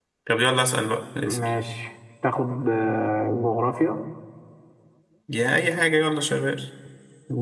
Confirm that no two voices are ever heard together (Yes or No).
Yes